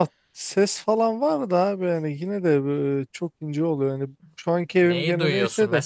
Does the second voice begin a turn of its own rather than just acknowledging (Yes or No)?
Yes